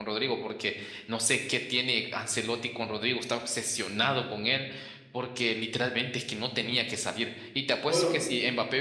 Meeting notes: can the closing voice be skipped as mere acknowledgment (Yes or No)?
Yes